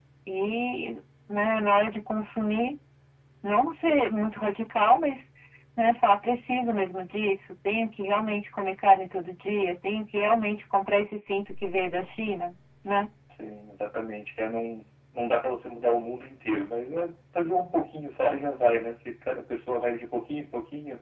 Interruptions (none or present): none